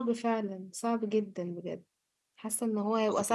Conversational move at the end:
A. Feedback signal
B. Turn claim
A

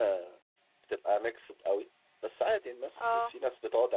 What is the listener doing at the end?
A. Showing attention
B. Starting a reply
A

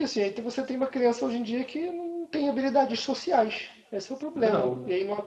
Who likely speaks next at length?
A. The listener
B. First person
B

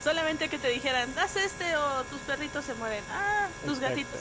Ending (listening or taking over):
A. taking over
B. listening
A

